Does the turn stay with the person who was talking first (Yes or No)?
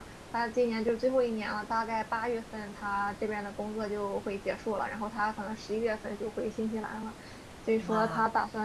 Yes